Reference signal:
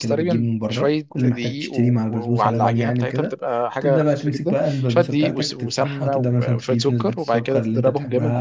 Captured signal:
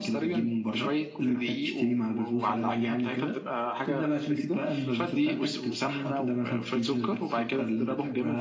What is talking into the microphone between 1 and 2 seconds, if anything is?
echo only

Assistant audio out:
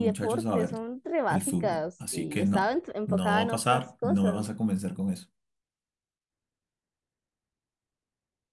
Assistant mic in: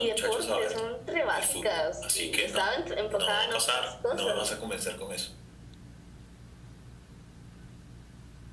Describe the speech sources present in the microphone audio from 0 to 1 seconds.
echo only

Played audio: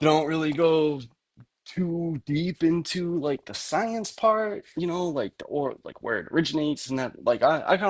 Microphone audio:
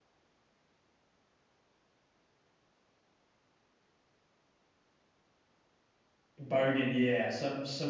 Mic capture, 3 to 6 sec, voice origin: neither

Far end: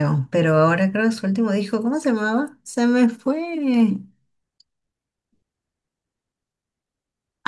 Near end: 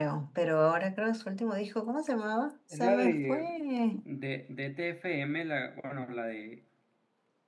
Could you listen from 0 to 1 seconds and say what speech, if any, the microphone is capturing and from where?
echo only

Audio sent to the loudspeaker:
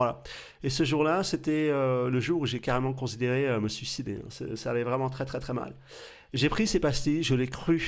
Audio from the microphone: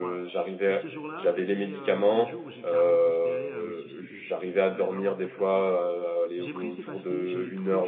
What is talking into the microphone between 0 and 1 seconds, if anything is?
both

